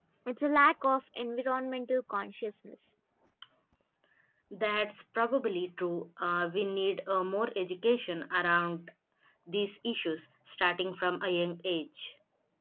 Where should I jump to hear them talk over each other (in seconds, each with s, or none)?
none